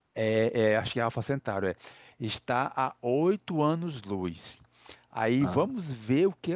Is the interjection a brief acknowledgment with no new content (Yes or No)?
Yes